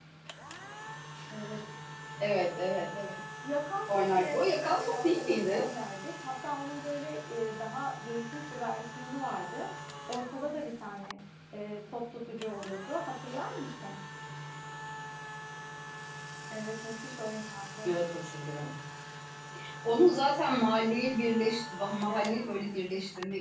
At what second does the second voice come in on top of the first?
3.9 s

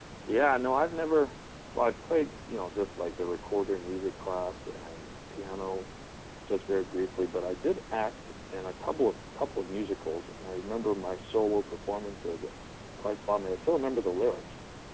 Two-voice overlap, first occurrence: none

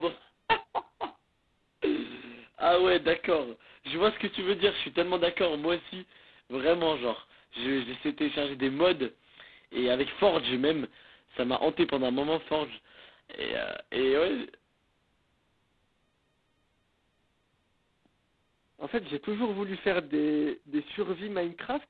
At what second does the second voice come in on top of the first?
none

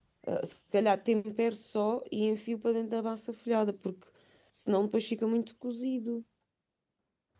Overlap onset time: none

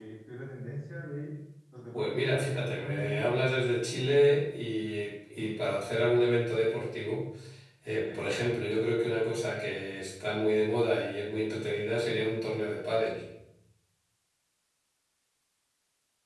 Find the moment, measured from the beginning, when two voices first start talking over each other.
1.9 s

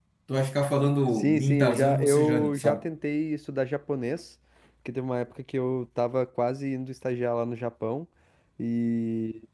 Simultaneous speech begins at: 1.1 s

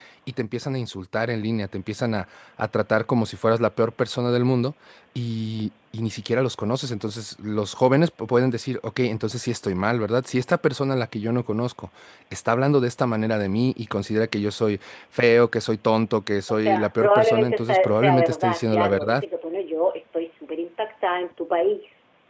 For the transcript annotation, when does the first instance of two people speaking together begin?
16.5 s

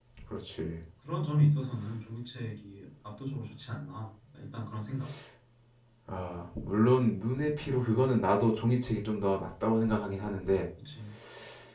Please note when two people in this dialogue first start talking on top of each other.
none

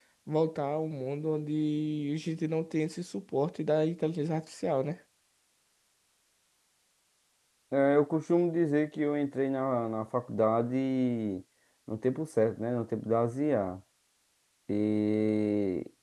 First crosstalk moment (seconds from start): none

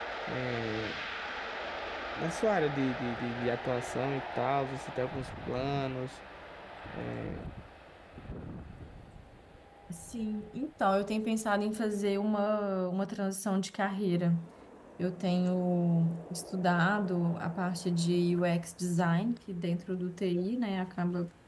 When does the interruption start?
none

